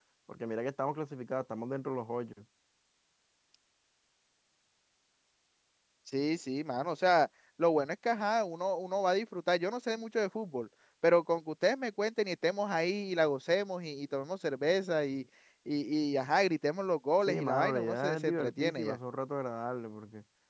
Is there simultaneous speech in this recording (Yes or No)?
Yes